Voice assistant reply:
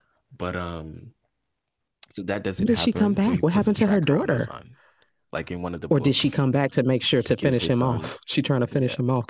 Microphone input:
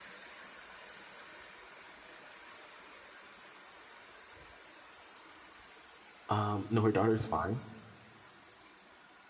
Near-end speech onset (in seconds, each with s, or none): 6.3 s